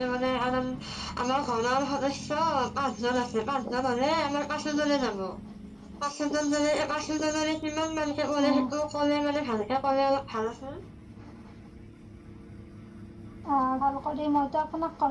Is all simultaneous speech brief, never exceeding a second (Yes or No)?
Yes